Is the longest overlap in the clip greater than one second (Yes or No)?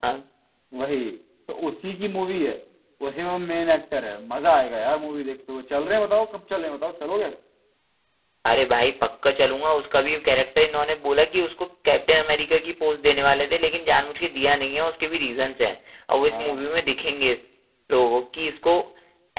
No